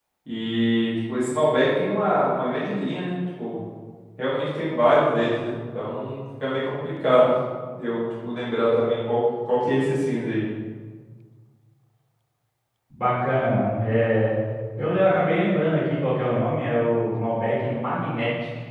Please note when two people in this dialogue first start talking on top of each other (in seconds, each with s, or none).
none